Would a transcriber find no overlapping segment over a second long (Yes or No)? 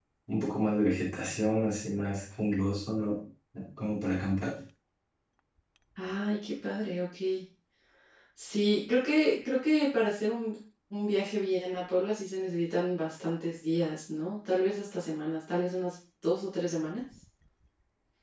Yes